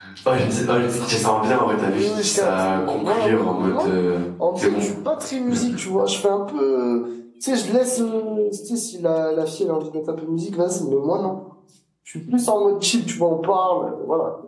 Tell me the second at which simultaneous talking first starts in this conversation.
1.9 s

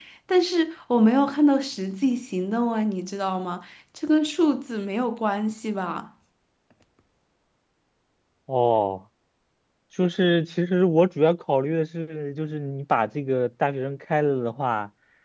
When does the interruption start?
none

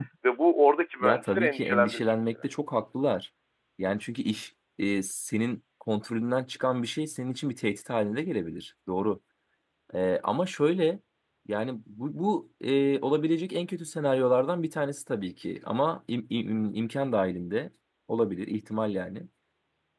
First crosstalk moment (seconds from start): 1.0 s

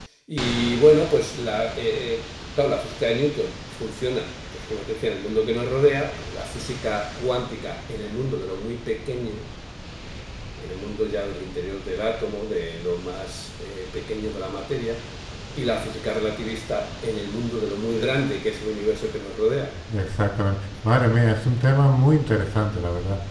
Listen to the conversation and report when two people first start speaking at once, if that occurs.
none

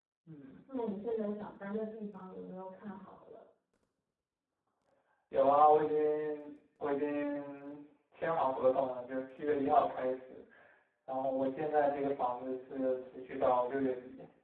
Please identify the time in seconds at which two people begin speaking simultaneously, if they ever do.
none

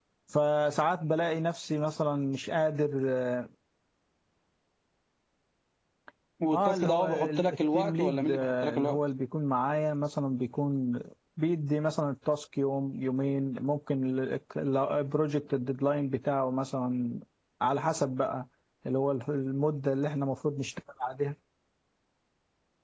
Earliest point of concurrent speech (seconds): 6.5 s

